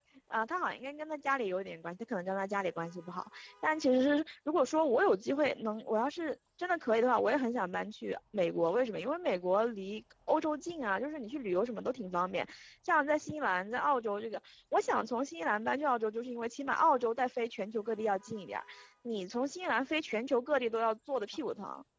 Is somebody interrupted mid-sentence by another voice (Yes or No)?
No